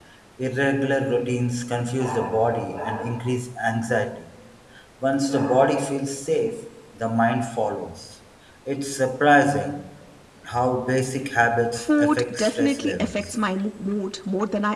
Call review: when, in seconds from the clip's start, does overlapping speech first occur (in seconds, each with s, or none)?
11.8 s